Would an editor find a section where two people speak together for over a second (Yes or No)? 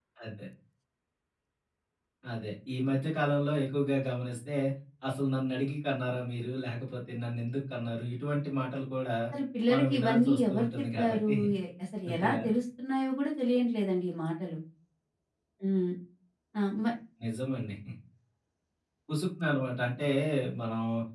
Yes